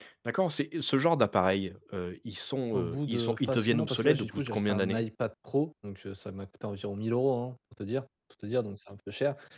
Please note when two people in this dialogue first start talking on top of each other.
2.7 s

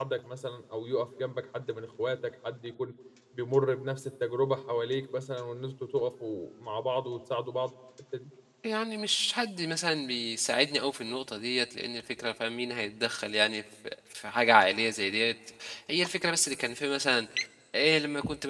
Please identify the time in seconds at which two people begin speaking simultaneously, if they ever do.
none

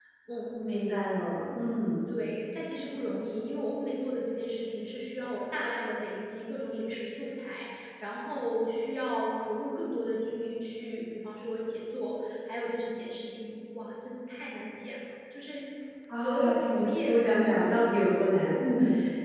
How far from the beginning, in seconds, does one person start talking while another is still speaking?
16.2 s

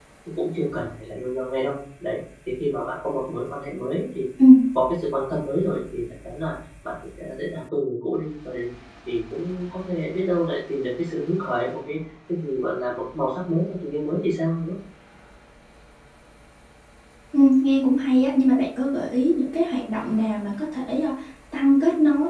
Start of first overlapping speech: none

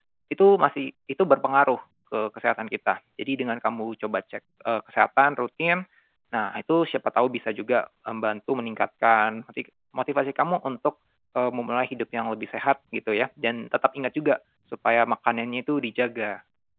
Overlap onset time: none

